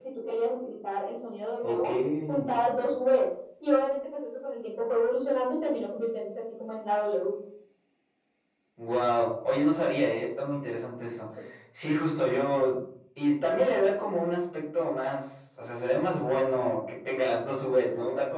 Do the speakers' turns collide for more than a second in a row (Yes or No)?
No